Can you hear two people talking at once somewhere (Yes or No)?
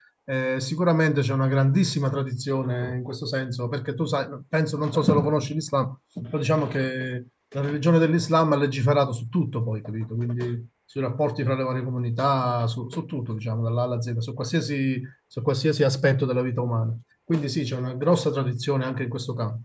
No